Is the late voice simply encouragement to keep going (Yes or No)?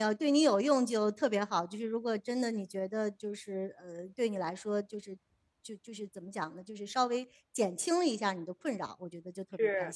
No